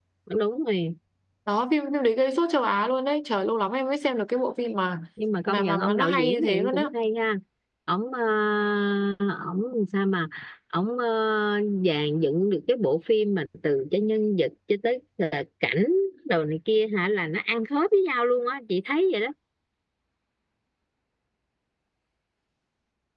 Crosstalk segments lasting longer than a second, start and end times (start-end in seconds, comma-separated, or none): 5.5-6.8